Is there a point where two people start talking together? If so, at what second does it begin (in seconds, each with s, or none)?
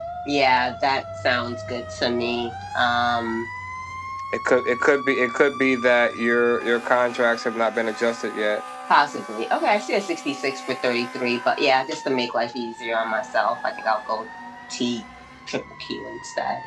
none